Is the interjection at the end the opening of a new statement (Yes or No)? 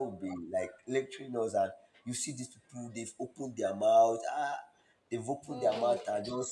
No